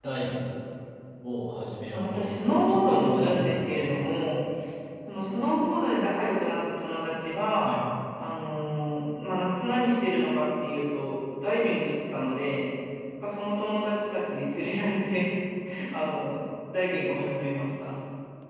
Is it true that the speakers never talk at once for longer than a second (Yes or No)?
No